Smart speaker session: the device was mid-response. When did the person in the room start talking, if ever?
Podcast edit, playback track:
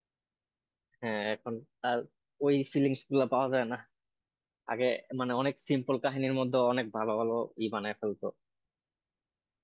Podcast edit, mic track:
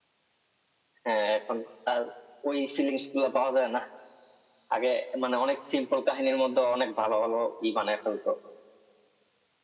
none

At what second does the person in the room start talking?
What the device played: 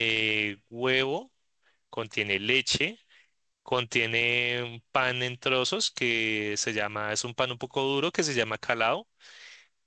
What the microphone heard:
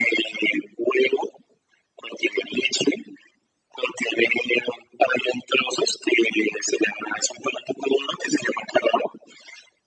none

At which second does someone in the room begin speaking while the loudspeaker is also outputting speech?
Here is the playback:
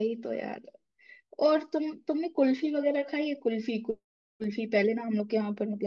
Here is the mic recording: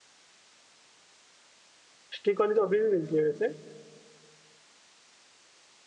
2.2 s

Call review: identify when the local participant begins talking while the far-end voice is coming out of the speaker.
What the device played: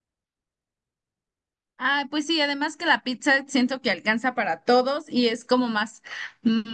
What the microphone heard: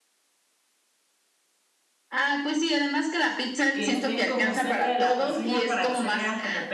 3.7 s

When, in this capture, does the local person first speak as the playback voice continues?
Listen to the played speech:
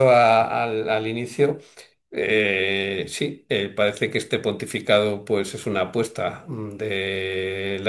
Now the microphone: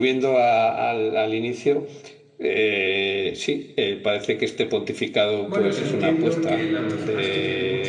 5.5 s

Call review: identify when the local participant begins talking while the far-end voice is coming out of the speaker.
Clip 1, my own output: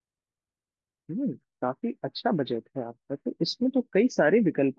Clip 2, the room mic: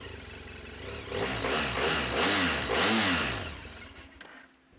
none

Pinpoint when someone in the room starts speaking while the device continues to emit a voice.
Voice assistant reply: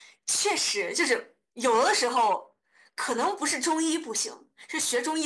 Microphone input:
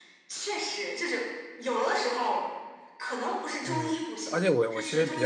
3.6 s

